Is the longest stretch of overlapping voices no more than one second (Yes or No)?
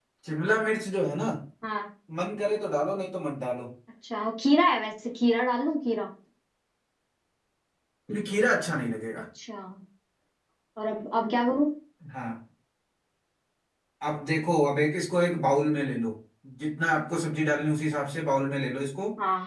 Yes